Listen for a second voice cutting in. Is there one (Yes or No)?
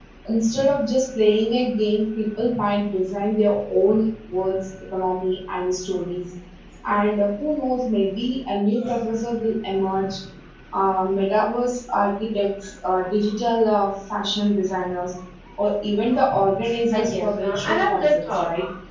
Yes